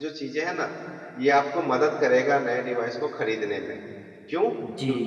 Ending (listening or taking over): listening